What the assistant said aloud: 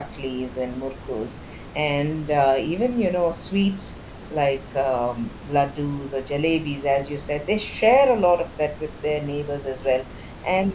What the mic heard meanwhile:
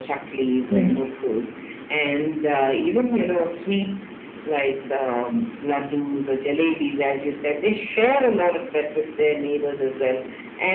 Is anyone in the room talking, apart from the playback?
Yes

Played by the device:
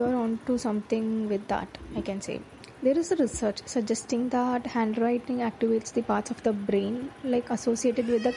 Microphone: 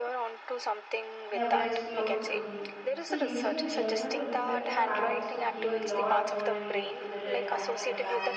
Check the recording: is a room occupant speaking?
Yes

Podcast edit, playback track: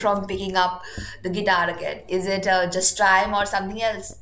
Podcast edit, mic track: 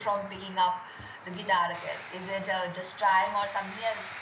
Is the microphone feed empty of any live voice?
Yes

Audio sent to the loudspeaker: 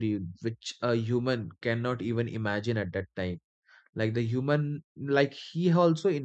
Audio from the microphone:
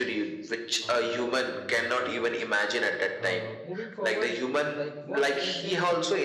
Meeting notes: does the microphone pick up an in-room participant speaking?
Yes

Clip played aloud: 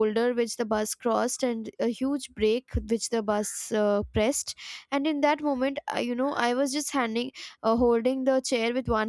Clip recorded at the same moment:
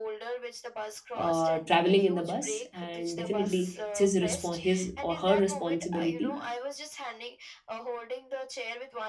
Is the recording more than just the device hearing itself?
Yes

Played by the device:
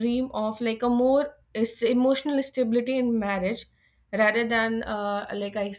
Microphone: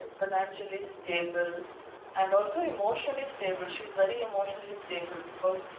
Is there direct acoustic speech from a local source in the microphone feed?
Yes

